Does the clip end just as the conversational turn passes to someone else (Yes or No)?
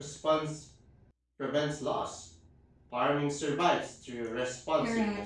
Yes